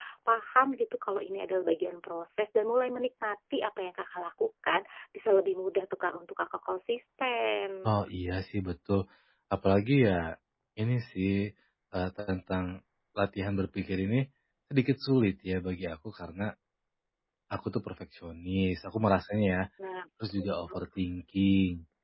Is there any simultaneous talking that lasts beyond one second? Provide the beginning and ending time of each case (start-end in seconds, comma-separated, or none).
none